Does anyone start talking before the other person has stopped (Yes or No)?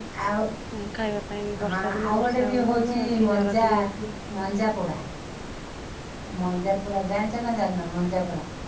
Yes